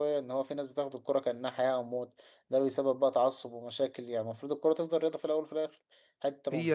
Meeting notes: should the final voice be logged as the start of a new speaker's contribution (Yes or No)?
No